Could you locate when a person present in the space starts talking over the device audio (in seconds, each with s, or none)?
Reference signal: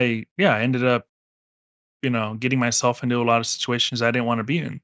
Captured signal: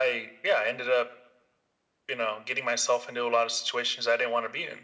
none